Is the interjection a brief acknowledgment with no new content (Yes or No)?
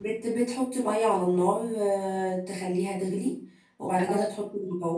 Yes